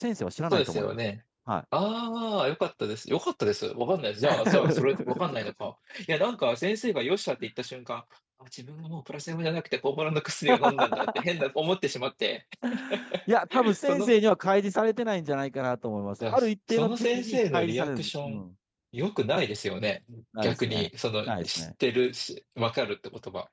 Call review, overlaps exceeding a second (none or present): present